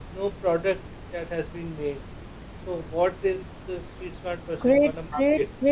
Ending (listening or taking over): taking over